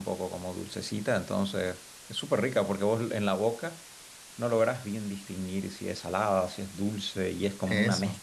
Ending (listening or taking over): listening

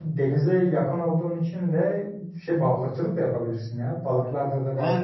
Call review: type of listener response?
taking over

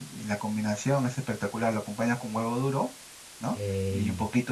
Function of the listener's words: listening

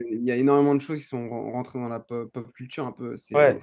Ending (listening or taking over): taking over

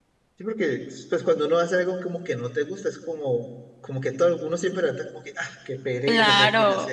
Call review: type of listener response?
taking over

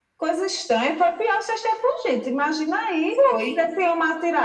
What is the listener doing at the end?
listening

